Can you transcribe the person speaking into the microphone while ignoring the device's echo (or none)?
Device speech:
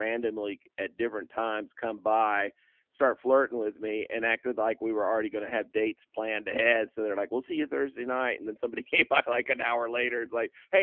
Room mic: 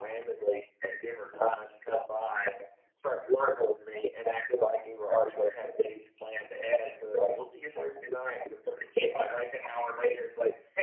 none